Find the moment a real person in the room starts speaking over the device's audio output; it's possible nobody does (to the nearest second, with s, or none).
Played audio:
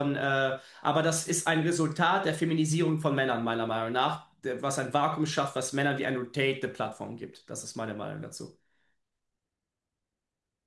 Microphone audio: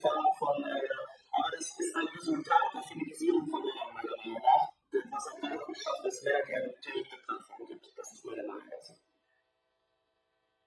none